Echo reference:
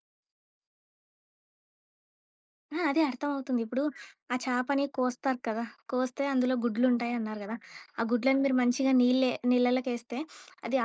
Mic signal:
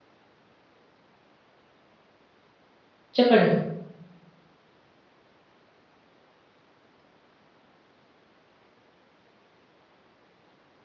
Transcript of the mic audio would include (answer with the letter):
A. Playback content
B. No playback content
B